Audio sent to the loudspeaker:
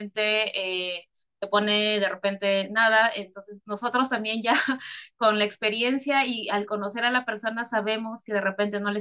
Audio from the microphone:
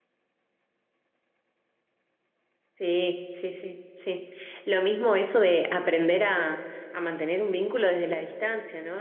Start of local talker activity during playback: 2.8 s

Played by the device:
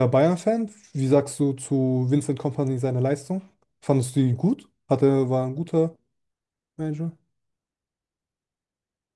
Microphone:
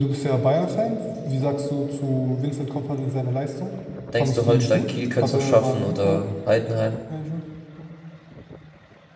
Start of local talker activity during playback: 4.1 s

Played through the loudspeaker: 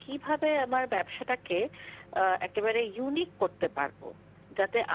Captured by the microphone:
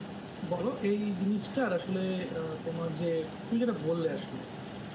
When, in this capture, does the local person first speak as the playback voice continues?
0.5 s

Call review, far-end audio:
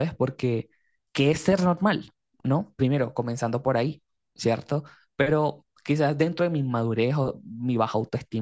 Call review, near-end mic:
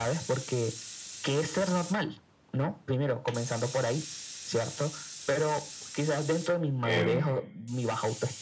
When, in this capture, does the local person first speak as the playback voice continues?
6.8 s

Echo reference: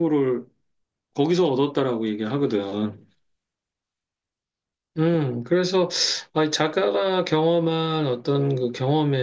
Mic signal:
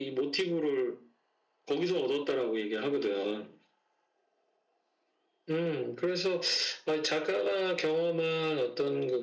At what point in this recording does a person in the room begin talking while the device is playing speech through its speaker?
none

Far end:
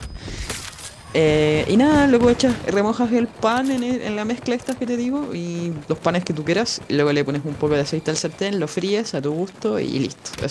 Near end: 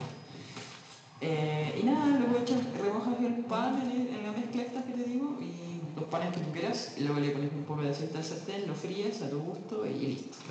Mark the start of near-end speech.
3.5 s

